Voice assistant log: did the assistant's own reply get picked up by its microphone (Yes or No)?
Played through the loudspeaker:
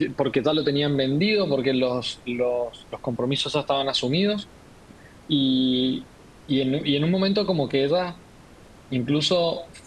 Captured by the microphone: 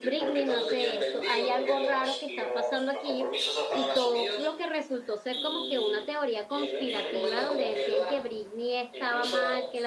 Yes